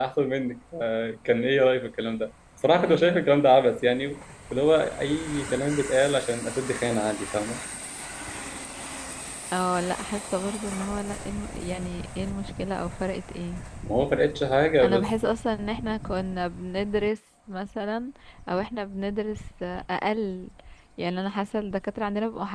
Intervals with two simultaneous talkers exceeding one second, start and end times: none

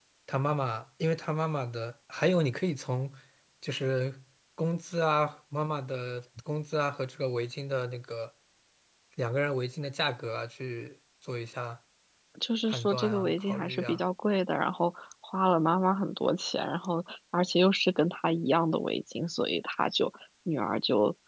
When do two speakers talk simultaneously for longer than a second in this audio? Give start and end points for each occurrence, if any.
12.6-14.0

